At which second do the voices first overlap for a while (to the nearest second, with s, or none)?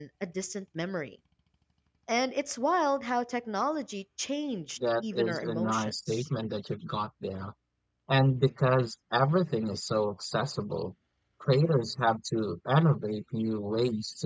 5 s